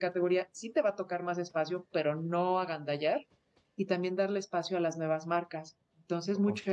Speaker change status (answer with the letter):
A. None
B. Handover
A